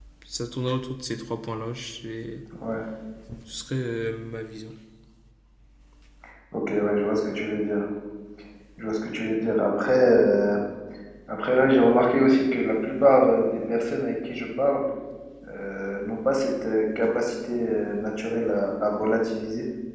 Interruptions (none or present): none